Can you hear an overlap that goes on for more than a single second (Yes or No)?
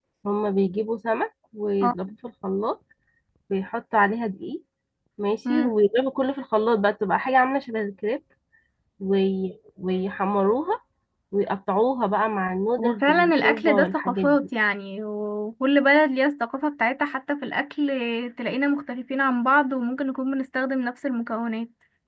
Yes